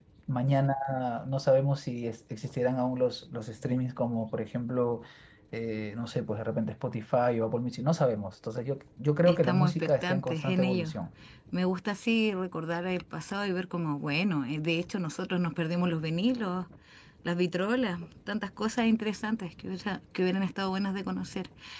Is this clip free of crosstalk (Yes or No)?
No